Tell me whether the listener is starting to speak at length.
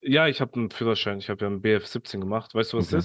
Yes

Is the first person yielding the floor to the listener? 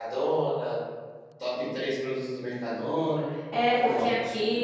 Yes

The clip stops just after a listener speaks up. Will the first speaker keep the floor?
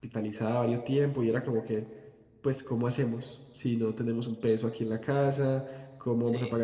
Yes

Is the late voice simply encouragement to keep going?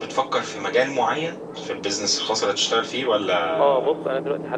No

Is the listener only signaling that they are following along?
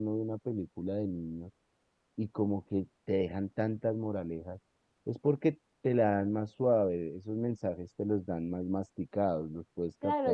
No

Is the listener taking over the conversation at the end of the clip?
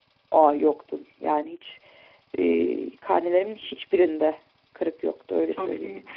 Yes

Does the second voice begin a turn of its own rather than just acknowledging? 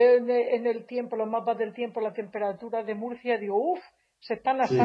Yes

